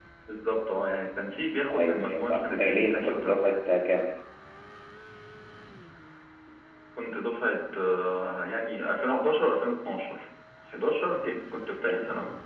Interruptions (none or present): present